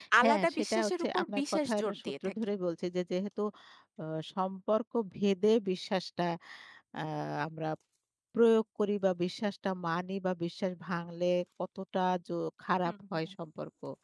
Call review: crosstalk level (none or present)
present